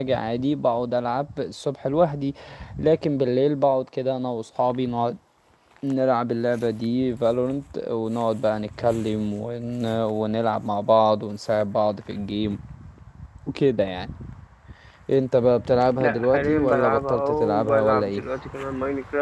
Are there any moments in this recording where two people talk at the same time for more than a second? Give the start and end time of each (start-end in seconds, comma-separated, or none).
16.0-18.2